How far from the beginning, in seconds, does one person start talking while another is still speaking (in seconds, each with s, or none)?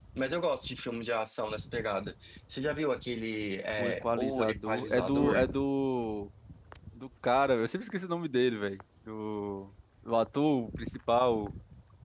3.8 s